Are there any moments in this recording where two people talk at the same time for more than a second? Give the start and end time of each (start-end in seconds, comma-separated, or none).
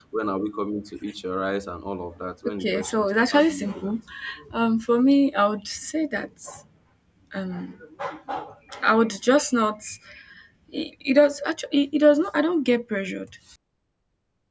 2.4-3.9